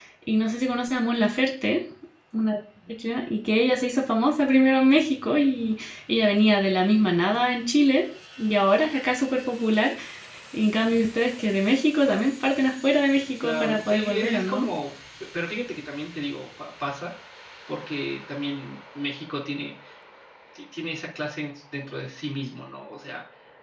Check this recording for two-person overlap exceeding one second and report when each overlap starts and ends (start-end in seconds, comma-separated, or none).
13.4-14.7